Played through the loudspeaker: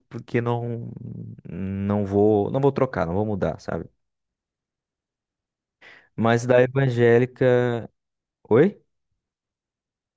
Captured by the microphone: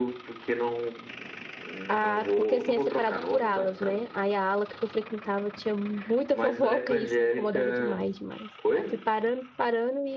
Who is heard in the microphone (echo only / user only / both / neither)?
both